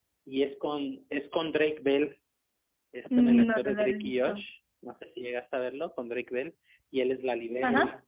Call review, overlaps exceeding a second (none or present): present